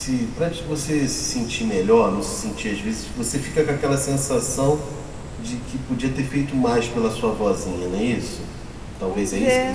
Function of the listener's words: taking over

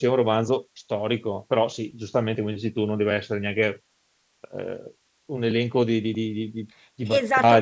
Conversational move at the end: taking over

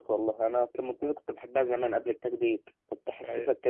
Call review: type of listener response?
listening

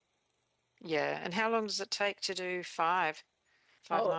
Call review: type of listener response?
taking over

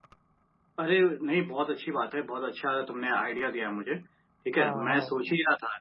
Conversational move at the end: listening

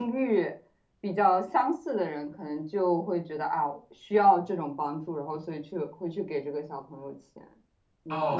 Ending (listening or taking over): taking over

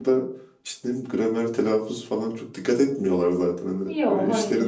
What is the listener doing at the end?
listening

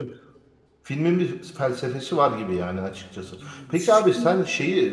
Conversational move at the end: listening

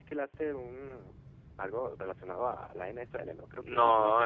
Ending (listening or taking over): taking over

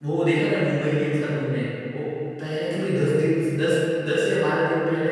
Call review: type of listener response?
listening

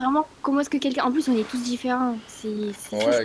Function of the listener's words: taking over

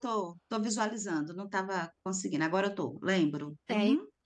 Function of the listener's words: taking over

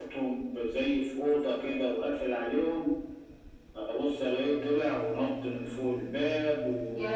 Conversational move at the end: listening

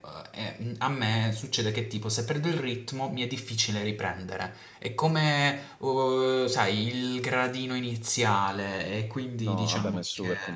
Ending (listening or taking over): taking over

